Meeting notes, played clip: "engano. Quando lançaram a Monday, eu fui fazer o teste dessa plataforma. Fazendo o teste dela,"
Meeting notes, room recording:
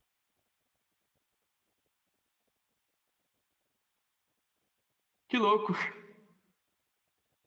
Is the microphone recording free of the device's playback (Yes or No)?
Yes